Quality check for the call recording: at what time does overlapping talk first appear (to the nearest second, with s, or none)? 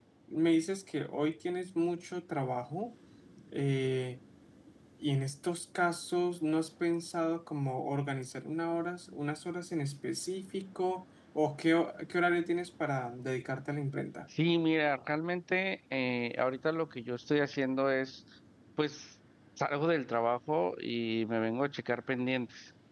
none